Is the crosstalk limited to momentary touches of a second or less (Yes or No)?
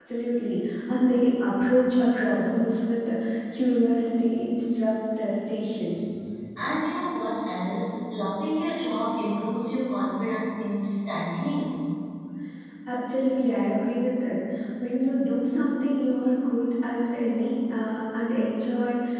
Yes